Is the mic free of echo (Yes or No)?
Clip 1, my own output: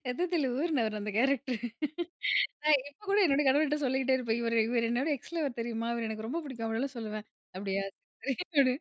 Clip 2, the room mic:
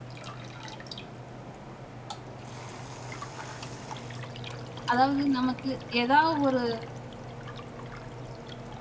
Yes